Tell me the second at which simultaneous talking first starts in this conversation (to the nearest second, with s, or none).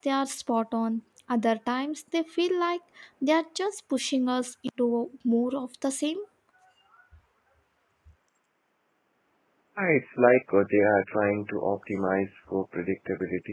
none